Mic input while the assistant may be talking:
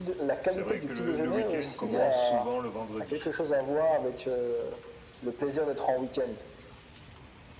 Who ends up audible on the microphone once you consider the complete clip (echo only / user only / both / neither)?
both